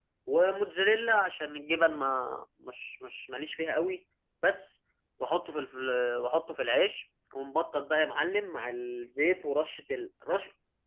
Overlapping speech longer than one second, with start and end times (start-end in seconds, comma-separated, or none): none